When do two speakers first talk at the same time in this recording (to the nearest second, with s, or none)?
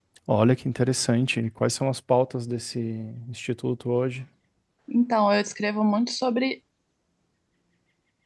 none